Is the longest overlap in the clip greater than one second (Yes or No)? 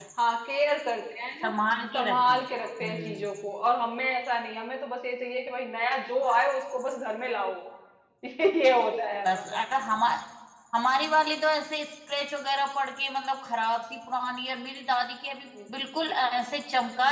No